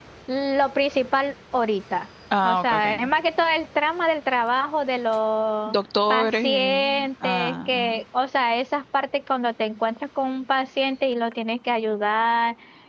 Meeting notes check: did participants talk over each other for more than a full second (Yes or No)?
Yes